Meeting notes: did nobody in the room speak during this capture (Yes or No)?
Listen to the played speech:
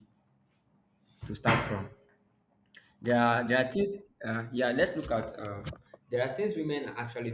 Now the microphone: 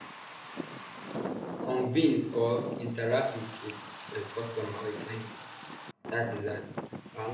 No